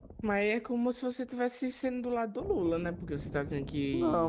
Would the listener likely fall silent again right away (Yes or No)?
No